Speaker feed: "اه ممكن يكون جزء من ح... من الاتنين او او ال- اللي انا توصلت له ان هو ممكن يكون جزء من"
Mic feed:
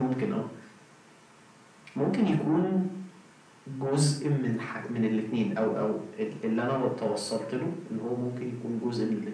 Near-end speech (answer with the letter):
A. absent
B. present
A